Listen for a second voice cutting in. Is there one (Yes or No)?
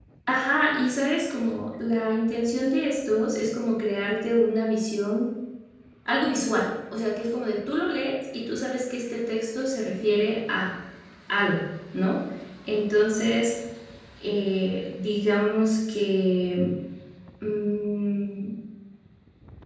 No